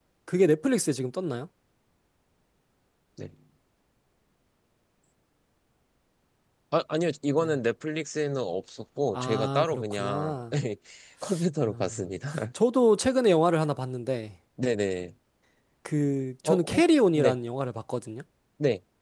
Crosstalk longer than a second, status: present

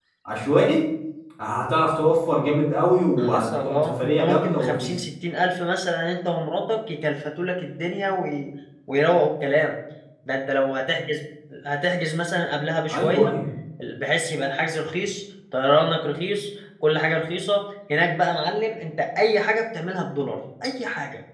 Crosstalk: present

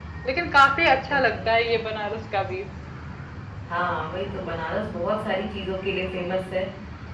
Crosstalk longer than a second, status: none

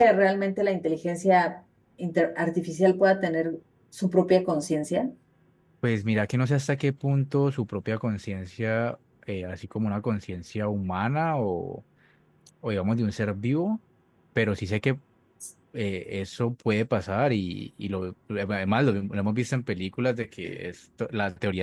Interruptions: none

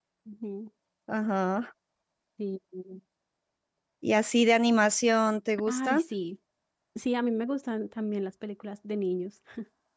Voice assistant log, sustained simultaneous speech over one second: none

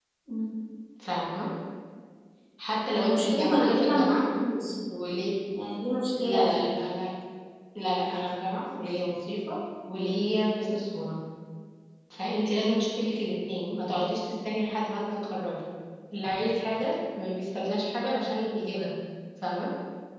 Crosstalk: present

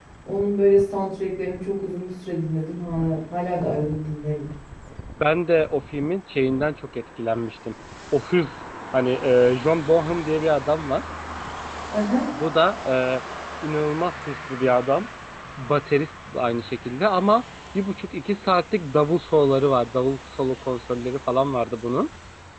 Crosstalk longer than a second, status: none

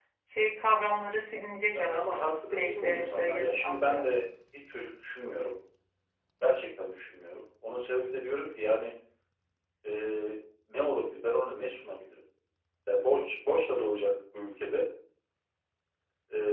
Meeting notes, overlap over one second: present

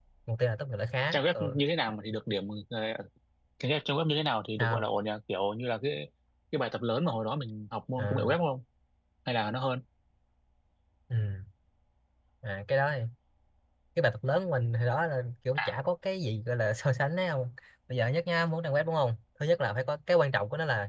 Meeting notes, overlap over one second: none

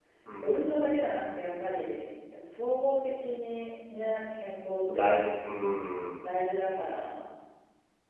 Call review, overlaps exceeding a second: none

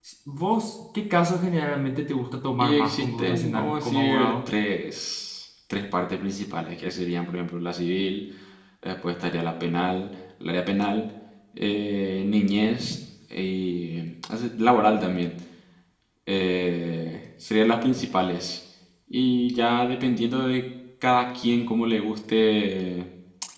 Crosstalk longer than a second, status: present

